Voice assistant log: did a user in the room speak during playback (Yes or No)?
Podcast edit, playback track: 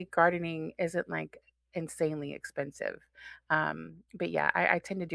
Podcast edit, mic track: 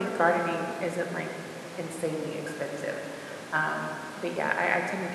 No